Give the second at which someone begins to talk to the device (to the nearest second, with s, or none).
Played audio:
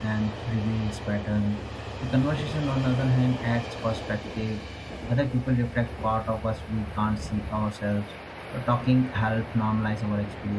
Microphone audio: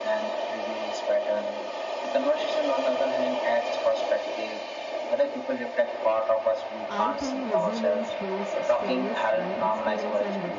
7 s